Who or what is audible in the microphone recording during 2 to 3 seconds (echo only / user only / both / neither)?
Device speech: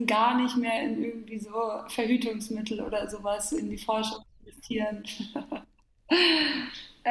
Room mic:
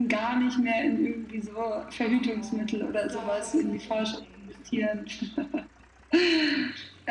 both